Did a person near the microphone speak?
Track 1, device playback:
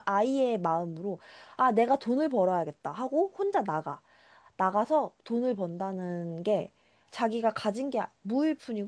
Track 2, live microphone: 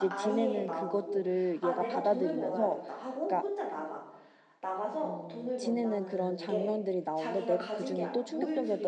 Yes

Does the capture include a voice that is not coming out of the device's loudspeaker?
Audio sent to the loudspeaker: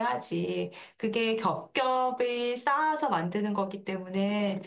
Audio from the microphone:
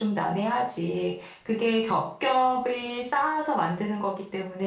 No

